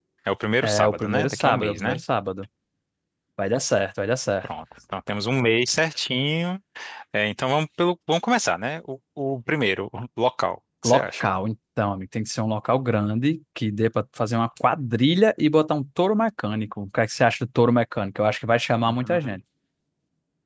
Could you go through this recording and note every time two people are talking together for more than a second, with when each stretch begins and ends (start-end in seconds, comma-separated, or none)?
0.6-2.0